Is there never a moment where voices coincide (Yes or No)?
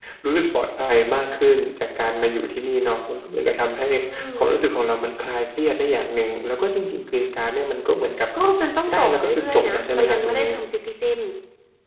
No